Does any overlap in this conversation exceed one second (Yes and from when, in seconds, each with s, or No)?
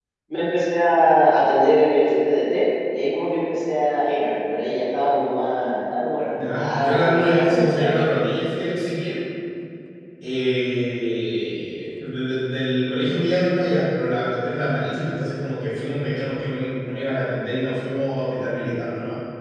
Yes, from 6.3 s